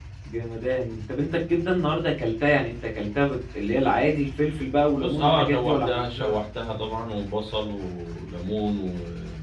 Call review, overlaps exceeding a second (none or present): present